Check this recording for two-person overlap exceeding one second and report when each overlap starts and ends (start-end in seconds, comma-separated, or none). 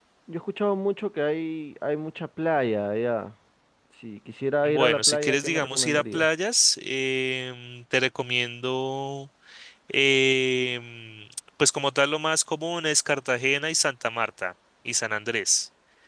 4.7-6.3